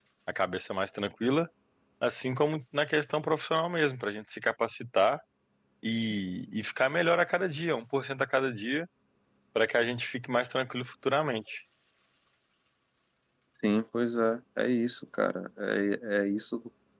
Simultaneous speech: No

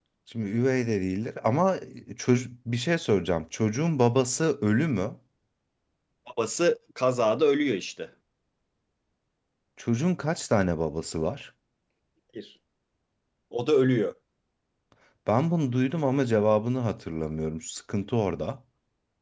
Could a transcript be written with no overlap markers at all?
Yes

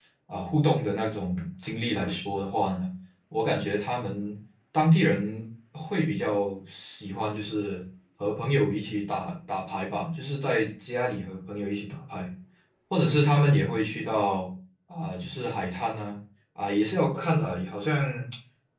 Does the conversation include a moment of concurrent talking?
No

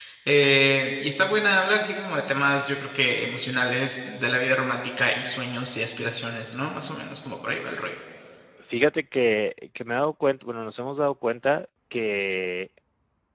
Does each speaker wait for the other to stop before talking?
Yes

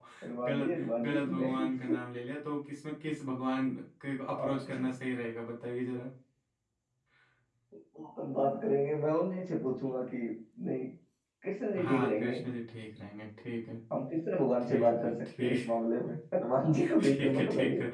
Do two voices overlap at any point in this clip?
Yes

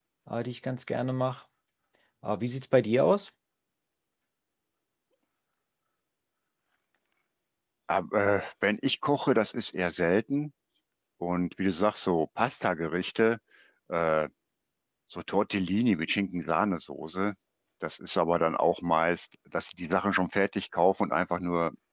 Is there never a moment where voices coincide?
Yes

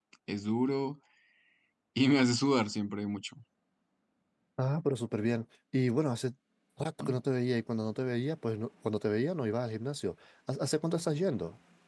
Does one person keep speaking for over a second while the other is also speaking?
No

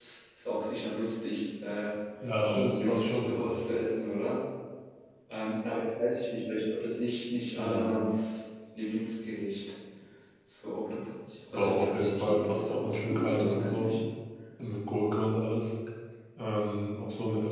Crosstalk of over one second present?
Yes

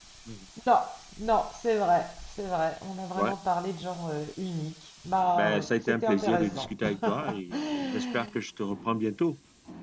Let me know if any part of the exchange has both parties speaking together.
Yes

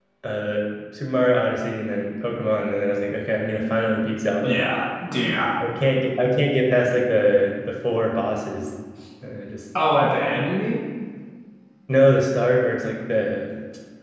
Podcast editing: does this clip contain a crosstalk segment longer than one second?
No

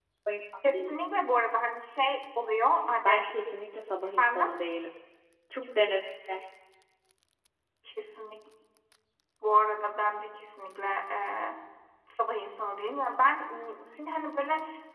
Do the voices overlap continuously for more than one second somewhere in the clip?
No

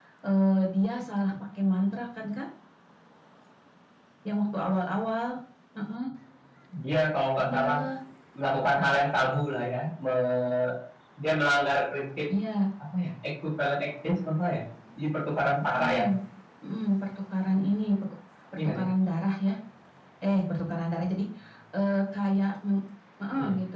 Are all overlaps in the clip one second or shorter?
Yes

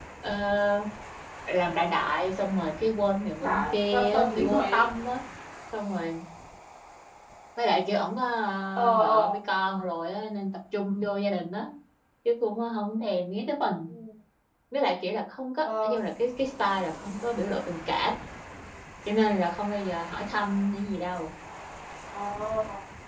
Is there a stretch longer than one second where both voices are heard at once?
Yes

